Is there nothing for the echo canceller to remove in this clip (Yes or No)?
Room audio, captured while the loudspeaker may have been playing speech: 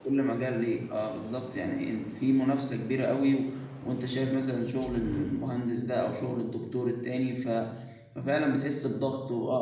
Yes